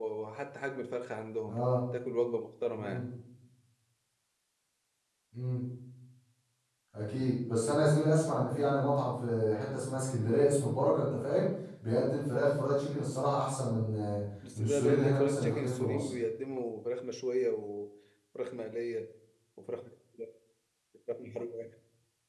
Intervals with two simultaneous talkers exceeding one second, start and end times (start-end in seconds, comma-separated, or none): 14.6-16.1